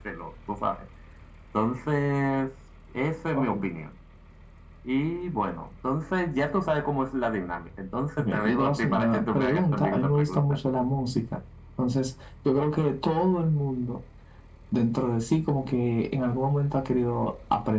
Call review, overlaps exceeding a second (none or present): present